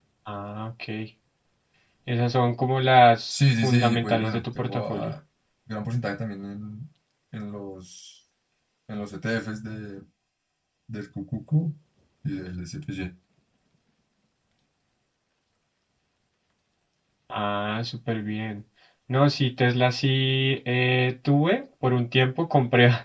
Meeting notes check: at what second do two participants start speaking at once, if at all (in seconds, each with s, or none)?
3.3 s